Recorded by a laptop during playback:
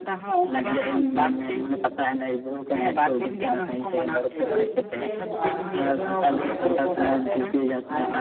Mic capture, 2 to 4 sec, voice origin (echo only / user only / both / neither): echo only